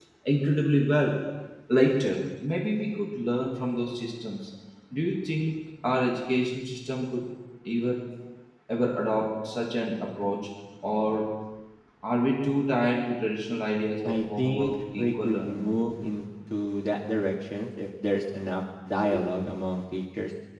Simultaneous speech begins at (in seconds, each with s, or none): 14.0 s